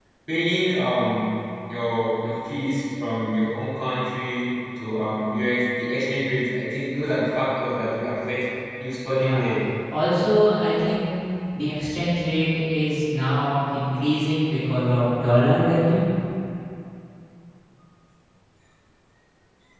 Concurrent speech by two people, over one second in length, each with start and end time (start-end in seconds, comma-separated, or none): none